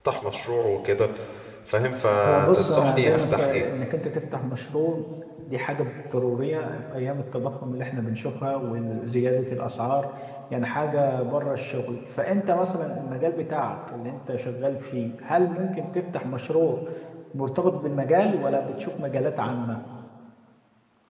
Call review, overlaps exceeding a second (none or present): present